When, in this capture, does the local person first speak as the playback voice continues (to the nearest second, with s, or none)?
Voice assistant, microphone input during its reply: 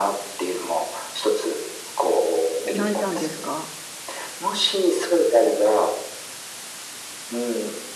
3 s